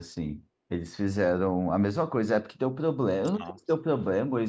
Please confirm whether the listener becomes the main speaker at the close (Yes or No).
No